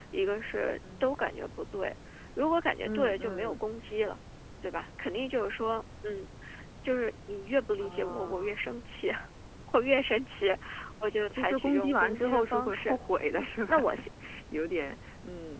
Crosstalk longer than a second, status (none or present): present